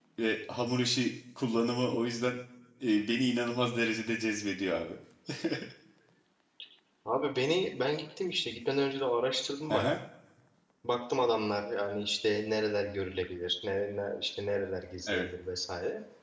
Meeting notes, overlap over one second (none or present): none